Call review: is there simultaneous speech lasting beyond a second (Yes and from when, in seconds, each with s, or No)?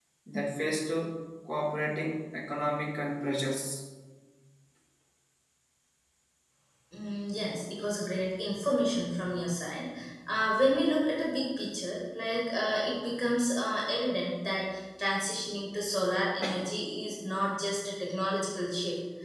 No